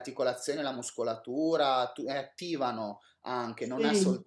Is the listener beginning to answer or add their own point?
No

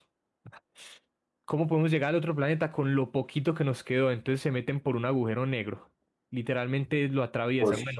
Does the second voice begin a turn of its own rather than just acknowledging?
No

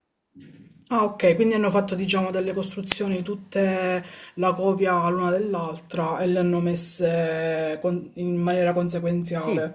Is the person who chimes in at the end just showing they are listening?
No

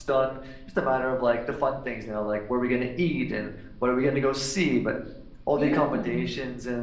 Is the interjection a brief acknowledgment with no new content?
Yes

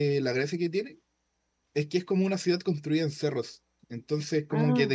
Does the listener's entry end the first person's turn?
No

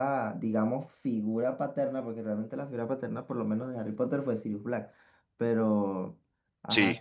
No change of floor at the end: Yes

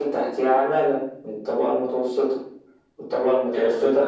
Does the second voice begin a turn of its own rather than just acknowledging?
No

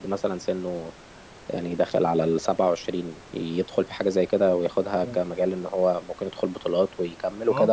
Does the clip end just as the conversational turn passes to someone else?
Yes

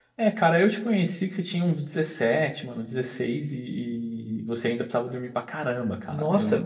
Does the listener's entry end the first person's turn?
Yes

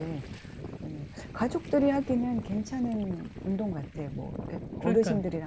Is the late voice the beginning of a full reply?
No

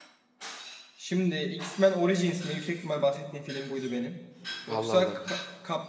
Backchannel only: Yes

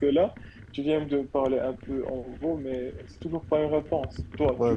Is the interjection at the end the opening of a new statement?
Yes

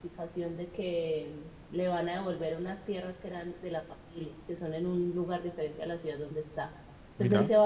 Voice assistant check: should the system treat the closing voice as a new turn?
No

